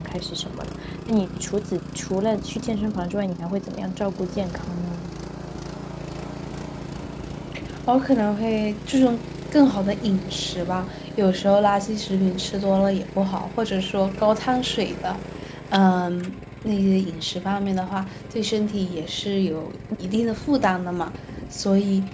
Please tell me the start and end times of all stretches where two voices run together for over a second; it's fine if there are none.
none

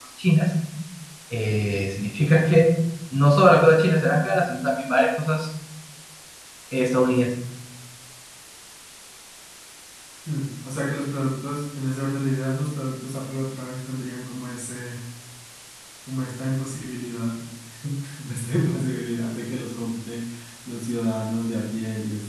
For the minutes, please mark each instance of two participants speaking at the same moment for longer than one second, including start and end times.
none

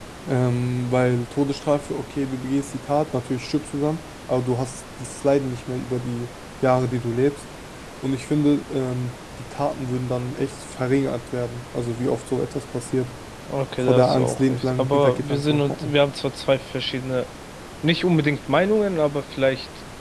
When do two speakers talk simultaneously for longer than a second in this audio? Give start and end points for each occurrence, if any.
13.8-15.9

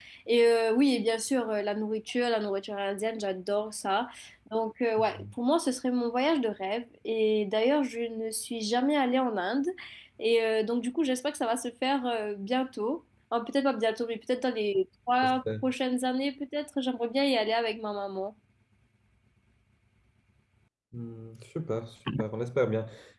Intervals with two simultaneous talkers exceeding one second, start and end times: none

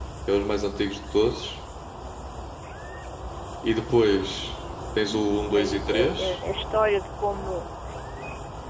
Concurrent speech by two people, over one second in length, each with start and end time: 5.0-6.4

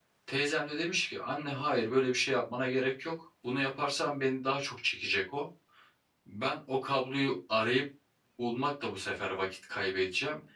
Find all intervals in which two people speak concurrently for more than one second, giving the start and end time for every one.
none

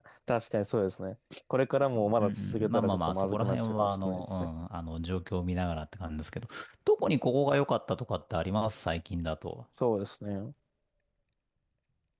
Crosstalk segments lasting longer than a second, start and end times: 2.2-4.3

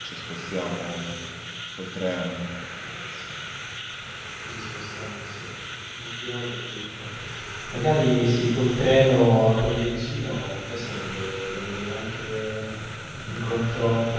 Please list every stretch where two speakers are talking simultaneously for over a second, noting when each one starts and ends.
none

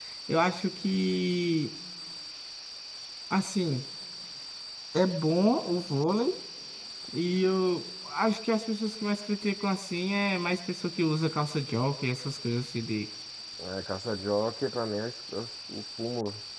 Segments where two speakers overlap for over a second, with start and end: none

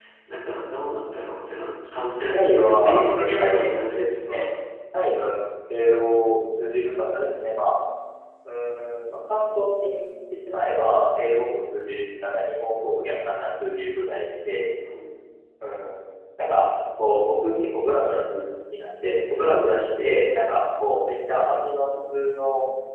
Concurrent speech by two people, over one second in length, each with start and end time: 2.3-4.5

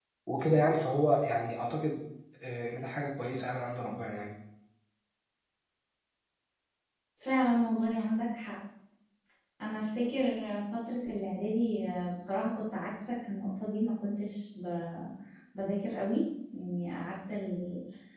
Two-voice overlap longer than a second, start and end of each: none

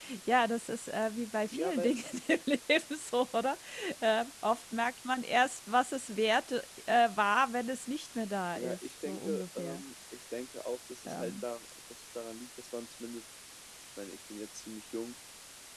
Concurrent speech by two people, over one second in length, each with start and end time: 8.6-9.8

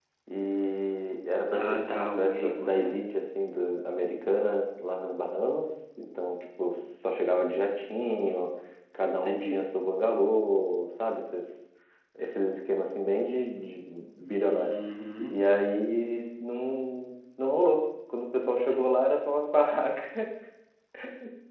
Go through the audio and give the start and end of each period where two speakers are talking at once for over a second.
1.5-3.0

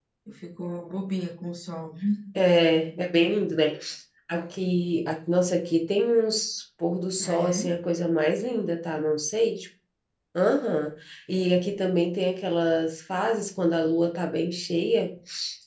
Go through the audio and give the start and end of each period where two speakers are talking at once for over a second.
none

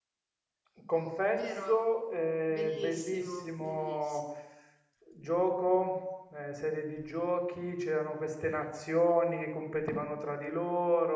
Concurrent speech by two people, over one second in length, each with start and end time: 2.5-4.2

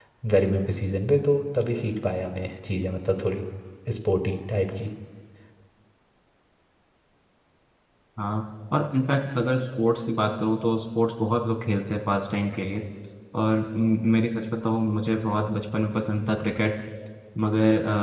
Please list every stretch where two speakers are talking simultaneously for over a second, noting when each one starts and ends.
none

